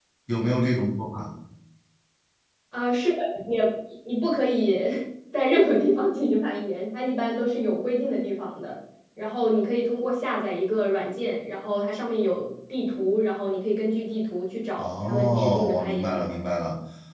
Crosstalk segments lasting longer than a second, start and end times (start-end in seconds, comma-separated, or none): 14.8-16.2